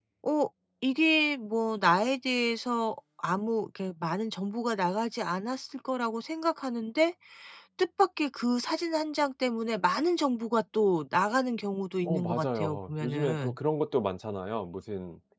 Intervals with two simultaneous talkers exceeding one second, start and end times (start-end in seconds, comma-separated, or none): 12.1-13.6